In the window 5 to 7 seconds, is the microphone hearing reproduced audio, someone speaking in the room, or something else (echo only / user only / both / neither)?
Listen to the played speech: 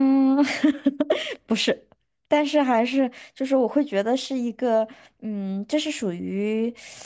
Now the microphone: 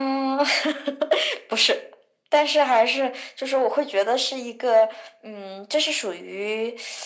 echo only